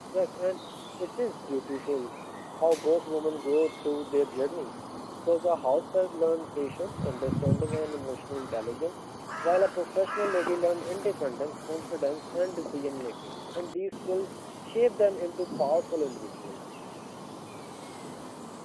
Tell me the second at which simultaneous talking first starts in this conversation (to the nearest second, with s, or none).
none